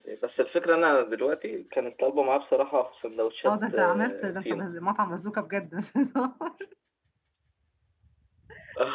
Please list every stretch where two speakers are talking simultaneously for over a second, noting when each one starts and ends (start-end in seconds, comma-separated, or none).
3.5-4.7